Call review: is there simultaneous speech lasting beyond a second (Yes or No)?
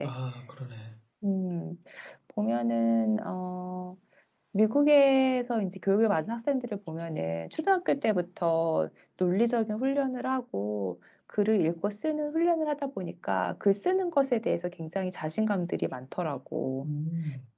No